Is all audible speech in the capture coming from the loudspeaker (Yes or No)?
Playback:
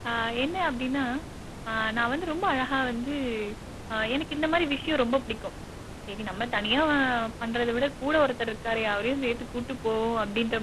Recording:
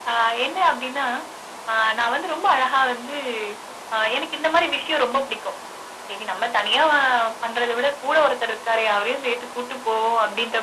Yes